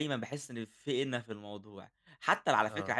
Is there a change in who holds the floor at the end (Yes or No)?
No